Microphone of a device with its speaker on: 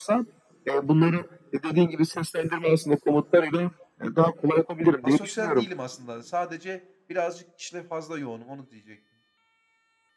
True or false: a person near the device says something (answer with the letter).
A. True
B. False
A